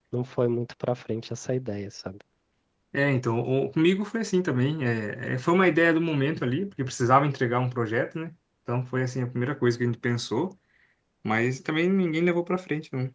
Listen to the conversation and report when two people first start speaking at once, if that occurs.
none

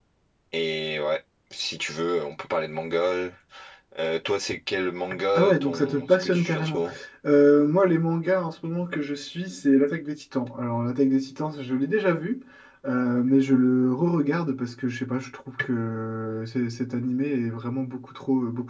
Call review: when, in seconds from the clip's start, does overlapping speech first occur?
5.3 s

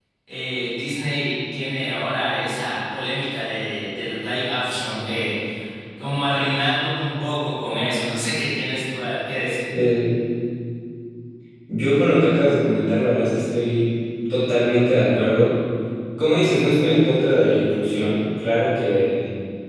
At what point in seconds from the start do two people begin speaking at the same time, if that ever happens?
none

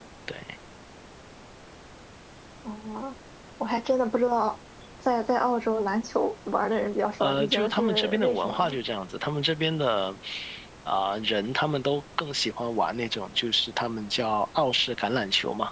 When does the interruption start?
7.2 s

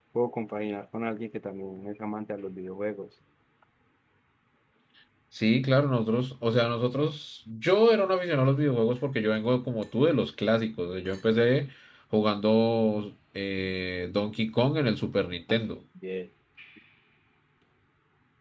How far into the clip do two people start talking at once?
none

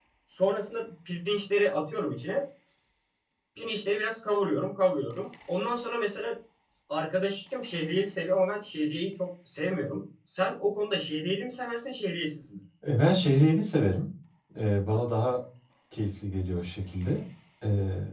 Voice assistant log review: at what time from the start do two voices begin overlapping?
none

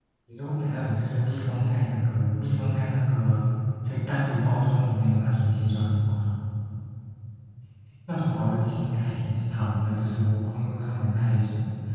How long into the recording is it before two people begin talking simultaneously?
none

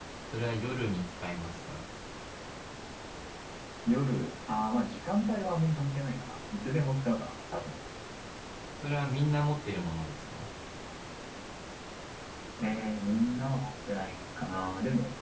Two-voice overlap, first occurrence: none

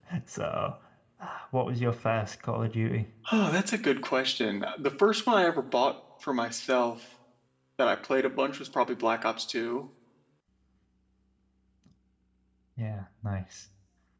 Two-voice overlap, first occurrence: none

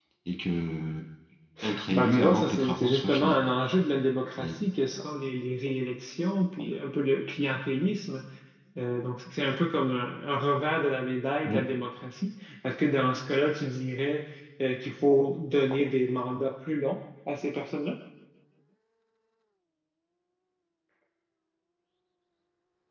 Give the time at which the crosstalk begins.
1.9 s

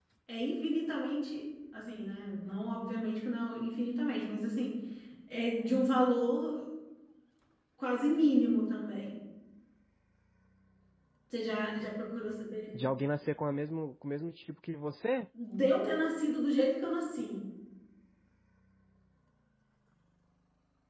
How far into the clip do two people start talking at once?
none

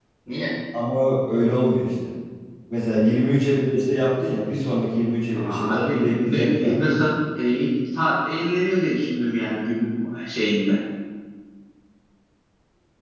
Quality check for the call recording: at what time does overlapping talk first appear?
5.3 s

